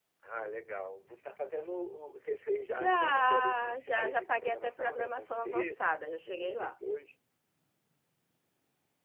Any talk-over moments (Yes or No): Yes